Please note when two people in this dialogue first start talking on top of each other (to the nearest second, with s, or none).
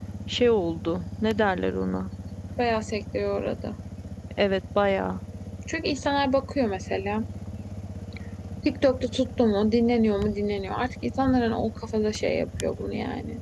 none